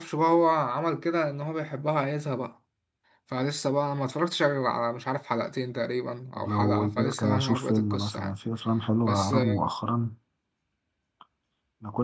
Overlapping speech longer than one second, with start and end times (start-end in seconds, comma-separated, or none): 6.4-8.4